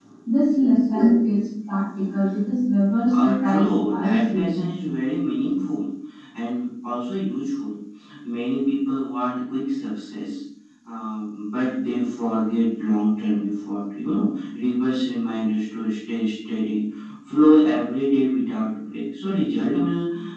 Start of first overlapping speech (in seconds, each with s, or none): 3.1 s